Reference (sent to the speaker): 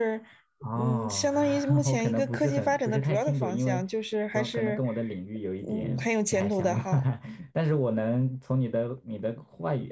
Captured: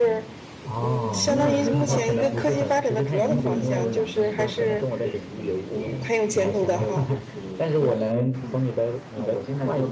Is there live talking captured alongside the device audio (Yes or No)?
Yes